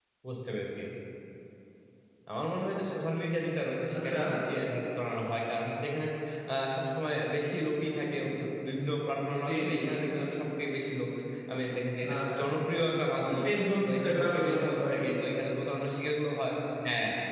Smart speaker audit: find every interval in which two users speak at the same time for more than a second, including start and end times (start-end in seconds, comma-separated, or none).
13.9-15.1